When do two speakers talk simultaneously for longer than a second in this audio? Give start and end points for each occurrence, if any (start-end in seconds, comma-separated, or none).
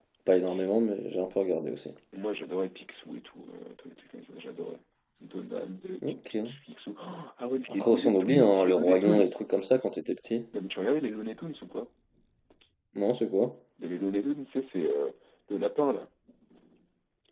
7.7-9.2